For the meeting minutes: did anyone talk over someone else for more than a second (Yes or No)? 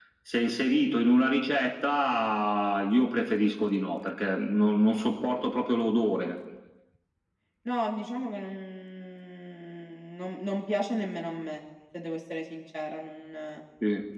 No